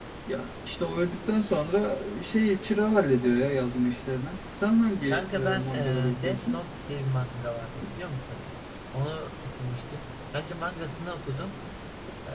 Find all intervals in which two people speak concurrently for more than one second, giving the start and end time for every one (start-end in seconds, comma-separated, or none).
5.1-6.6